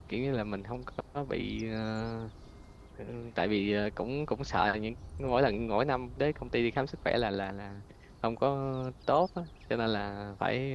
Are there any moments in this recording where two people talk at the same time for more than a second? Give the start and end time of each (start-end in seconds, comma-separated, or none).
none